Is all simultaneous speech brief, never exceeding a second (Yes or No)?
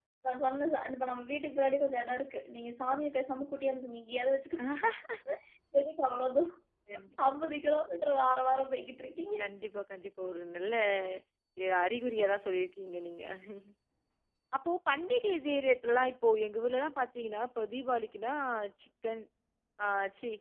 Yes